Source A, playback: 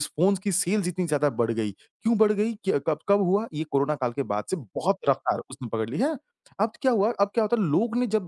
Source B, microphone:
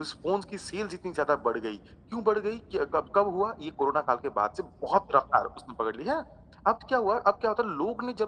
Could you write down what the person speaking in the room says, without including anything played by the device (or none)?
none